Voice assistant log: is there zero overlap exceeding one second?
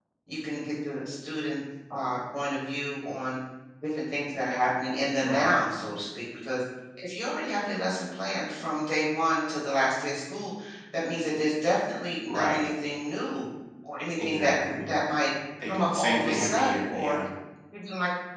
No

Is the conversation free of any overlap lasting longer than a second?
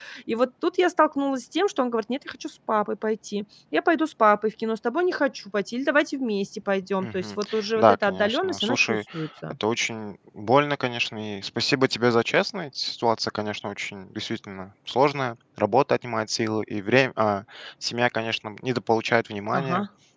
No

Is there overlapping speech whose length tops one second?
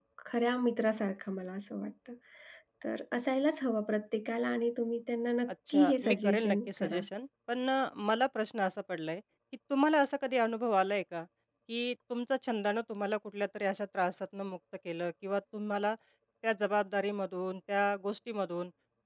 Yes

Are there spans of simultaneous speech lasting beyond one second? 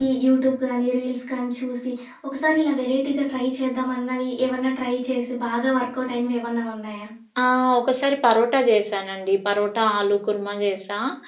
No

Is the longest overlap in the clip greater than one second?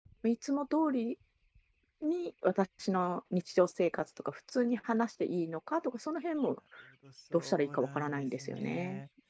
Yes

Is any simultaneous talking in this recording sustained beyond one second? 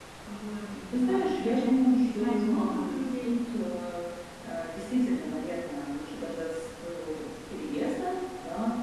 Yes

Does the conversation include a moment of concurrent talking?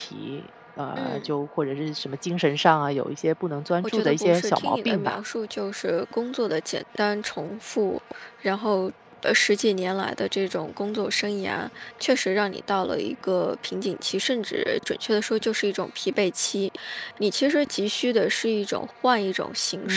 Yes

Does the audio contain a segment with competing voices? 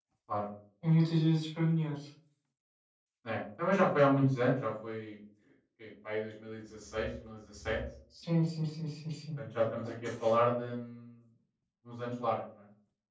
No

